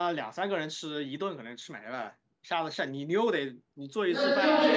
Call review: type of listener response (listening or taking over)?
taking over